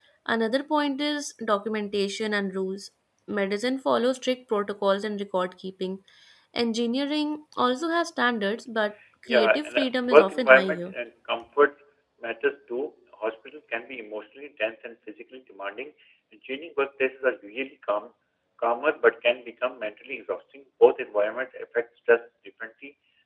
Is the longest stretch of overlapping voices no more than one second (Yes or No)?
No